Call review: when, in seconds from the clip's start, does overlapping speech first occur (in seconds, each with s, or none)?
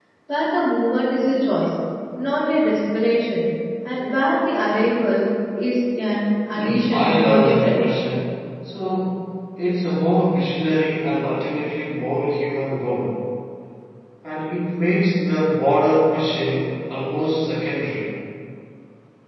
6.5 s